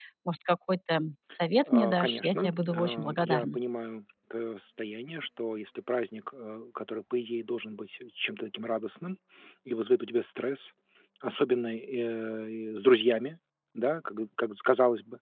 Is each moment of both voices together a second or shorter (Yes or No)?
No